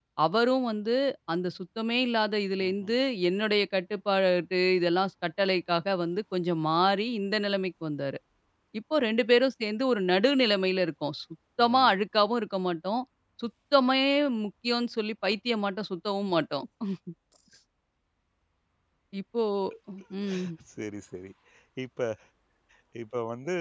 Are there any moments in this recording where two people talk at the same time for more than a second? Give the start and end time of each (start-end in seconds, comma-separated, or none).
none